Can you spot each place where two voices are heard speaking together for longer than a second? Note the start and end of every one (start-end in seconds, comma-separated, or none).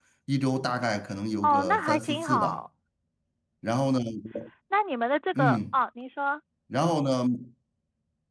1.4-2.6